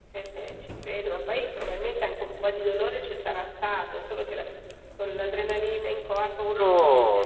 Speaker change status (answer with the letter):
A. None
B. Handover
B